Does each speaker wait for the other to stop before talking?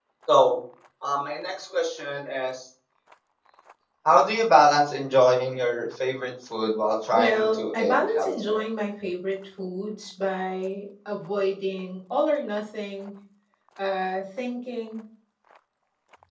No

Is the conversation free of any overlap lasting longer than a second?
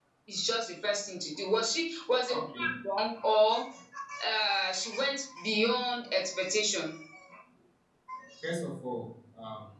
Yes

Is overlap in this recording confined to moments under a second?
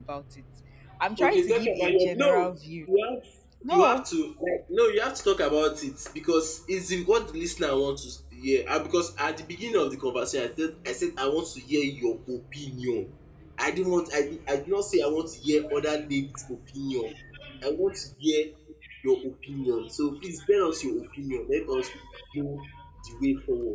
No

